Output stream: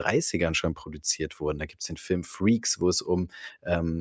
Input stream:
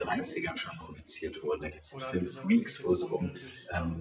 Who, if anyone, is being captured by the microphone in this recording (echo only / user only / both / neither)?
both